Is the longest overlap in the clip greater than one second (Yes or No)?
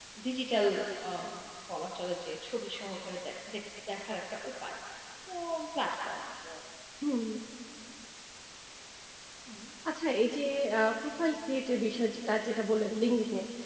No